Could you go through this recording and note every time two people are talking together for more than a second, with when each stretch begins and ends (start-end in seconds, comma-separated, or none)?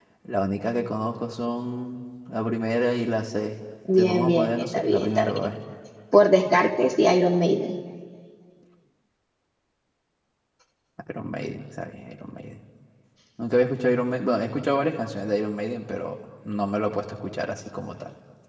4.0-5.4